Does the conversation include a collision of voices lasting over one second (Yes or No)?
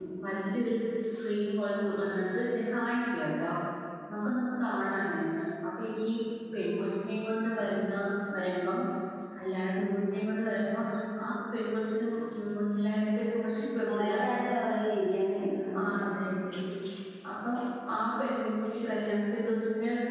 No